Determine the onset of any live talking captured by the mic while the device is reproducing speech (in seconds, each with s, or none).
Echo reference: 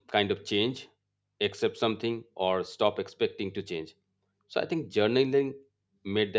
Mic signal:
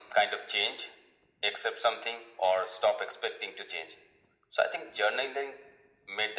none